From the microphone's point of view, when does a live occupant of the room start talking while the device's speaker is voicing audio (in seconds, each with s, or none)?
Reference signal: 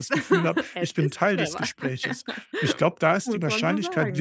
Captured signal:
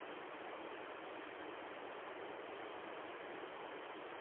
none